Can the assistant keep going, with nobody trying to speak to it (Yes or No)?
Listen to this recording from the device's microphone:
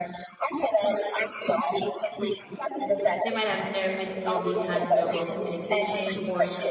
No